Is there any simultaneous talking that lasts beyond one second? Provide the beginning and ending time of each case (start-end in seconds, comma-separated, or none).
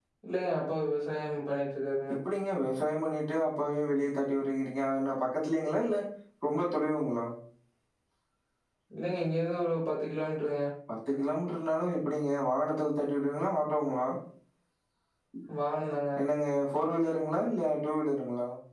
none